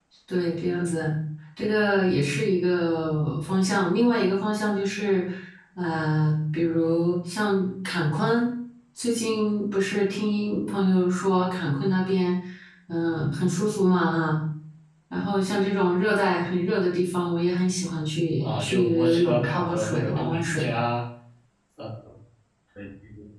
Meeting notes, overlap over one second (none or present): present